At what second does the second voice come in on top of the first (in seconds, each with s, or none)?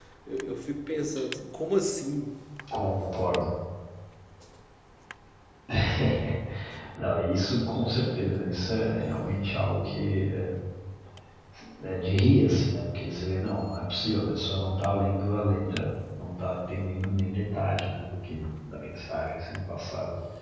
none